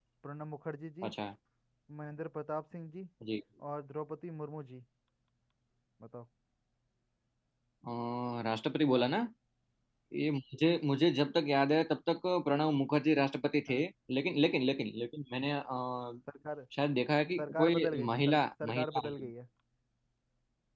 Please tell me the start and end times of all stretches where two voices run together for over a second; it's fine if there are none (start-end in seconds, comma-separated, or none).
17.4-19.3